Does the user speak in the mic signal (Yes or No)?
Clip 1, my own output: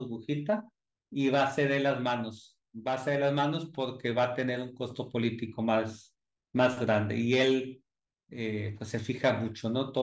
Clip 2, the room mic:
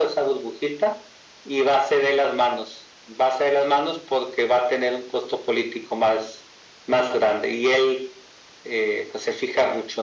No